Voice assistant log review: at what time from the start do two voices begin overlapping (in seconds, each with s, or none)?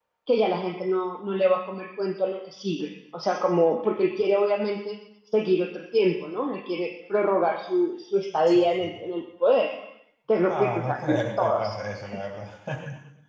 10.5 s